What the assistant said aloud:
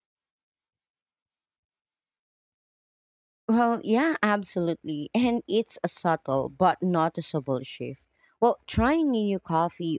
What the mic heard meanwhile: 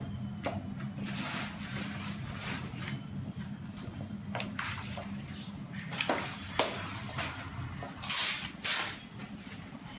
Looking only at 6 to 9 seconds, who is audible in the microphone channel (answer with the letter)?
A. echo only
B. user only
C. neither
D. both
C